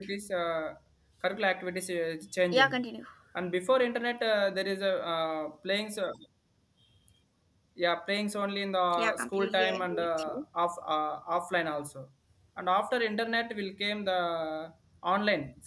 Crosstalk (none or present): present